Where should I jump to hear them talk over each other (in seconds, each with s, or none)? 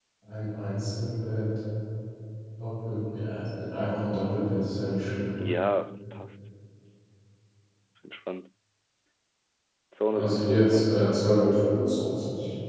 10.1 s